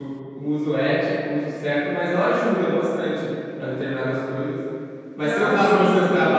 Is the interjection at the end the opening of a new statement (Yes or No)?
No